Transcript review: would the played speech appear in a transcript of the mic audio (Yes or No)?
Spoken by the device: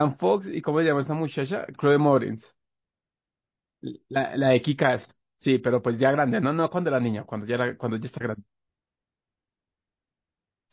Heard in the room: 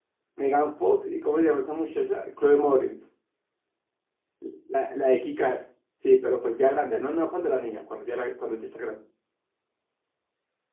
Yes